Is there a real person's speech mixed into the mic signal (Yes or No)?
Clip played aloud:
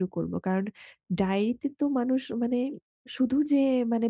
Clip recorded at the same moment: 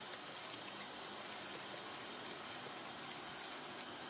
No